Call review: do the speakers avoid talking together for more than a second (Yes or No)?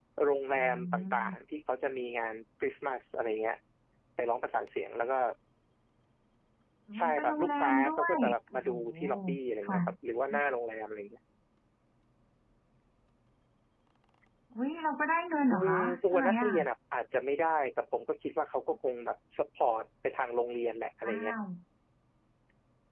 No